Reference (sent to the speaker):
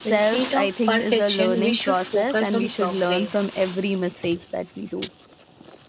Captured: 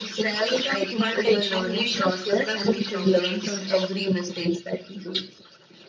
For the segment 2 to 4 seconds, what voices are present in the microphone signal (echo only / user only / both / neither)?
echo only